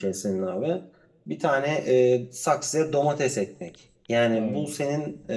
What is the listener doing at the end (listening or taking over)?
listening